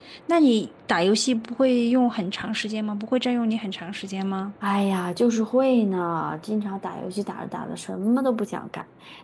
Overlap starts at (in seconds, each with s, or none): none